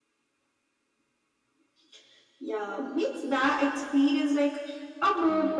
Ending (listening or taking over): taking over